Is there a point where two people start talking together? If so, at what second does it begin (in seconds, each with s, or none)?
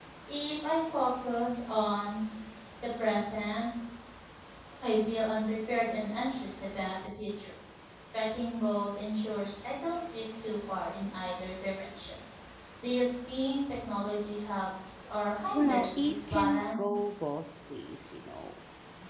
15.4 s